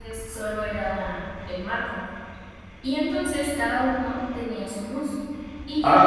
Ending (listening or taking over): taking over